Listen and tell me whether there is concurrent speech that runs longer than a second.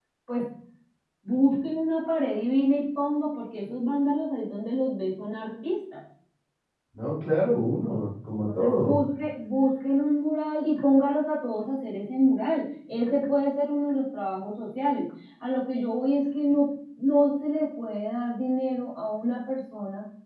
No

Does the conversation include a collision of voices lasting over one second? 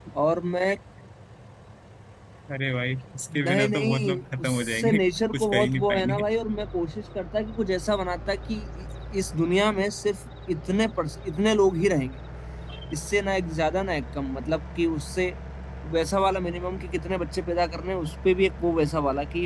Yes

